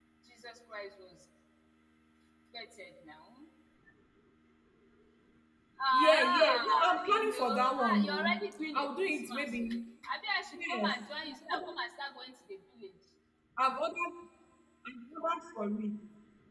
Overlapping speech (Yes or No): Yes